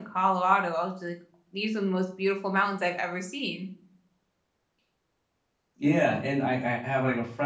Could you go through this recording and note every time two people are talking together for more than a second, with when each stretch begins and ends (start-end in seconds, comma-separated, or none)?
none